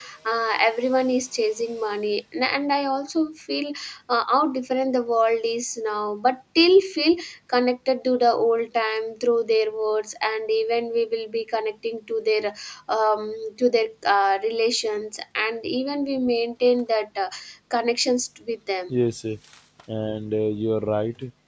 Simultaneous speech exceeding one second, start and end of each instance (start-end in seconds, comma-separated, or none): none